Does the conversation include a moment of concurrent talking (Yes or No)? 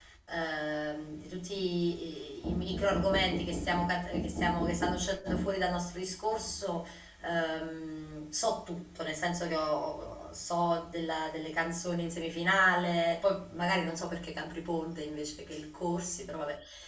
No